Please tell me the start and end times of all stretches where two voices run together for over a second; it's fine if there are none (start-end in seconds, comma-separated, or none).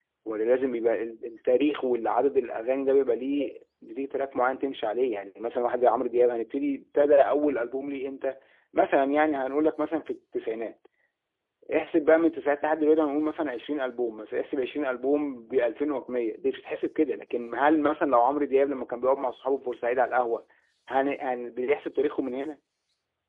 none